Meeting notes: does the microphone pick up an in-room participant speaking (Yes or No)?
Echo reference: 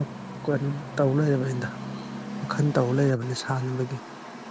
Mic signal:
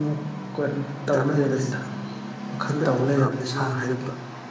Yes